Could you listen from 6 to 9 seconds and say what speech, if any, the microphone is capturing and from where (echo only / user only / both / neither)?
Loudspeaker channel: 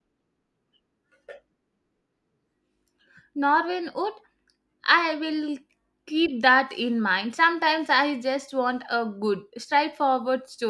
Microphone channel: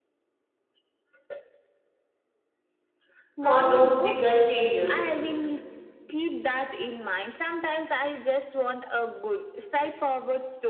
echo only